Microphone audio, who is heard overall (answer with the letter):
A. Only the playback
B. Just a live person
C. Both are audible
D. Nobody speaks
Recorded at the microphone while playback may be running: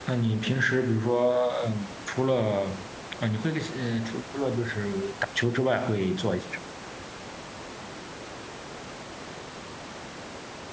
B